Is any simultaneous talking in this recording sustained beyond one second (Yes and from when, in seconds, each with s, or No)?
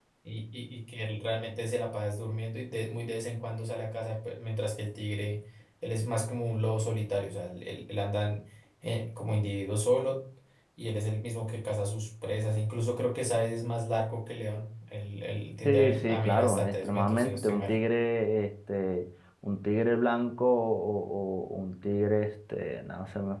Yes, from 15.7 s